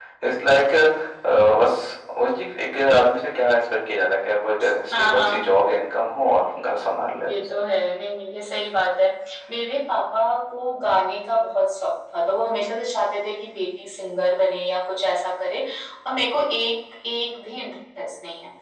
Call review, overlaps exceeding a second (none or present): none